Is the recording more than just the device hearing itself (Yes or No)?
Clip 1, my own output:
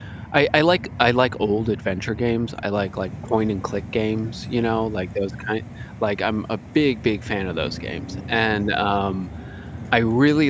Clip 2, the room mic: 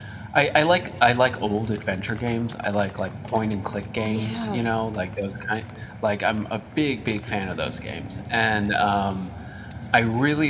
Yes